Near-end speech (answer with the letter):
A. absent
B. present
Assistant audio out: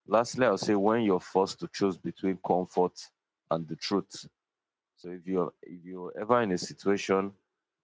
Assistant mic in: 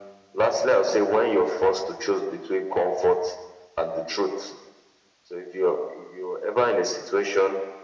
A